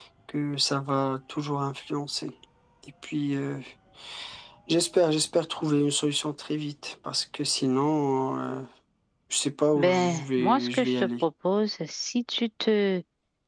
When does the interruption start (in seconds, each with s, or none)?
9.8 s